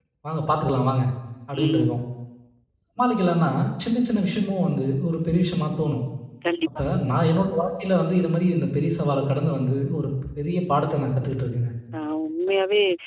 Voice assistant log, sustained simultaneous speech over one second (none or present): none